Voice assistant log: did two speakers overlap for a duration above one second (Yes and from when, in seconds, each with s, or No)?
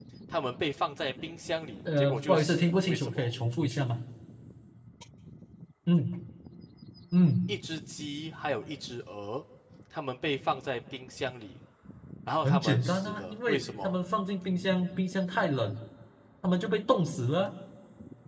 Yes, from 2.0 s